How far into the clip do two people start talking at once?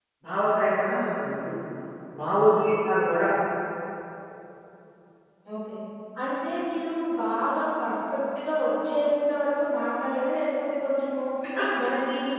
none

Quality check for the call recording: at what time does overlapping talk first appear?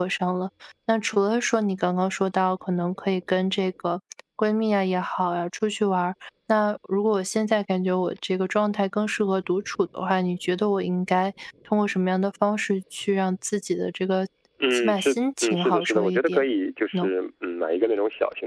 15 s

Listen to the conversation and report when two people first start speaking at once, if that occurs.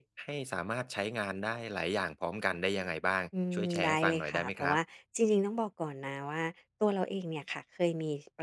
3 s

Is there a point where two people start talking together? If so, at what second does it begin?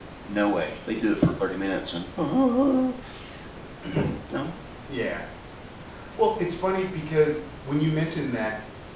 none

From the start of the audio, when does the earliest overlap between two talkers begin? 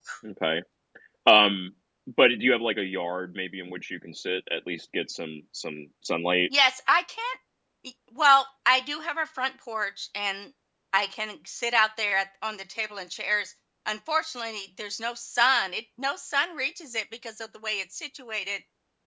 none

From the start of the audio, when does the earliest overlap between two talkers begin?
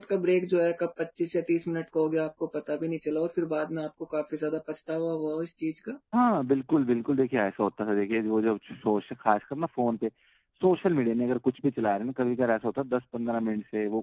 none

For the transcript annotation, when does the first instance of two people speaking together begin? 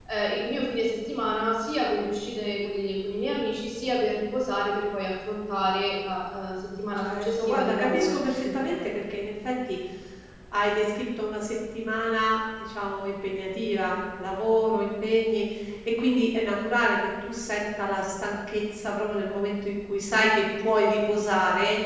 7 s

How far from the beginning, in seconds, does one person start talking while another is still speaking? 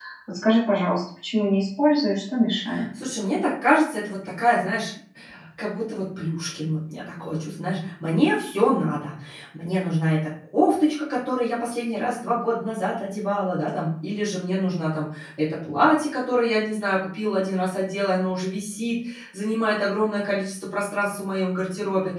none

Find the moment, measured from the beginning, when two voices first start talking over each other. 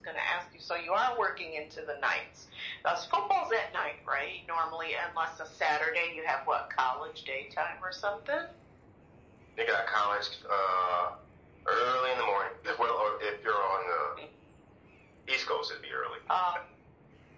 none

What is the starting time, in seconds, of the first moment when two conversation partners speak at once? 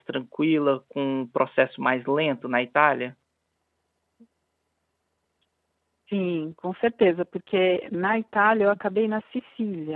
none

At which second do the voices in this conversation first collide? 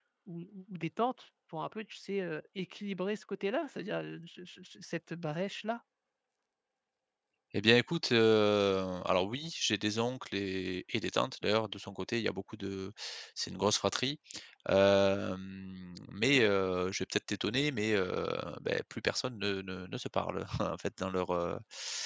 none

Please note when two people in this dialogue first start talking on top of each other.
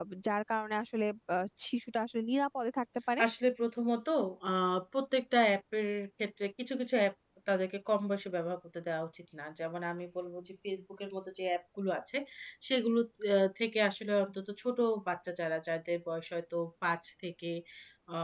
none

